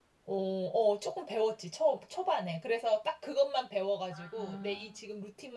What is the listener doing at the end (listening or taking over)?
listening